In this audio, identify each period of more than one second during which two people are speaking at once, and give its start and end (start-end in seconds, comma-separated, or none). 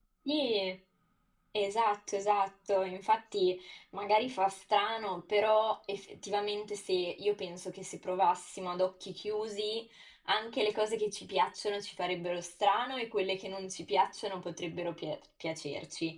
none